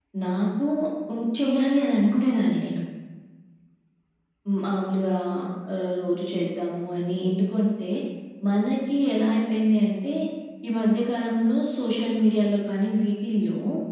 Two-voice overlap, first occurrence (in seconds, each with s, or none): none